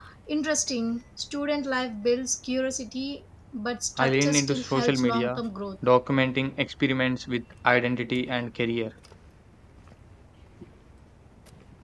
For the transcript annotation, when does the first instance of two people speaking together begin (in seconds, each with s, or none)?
4.0 s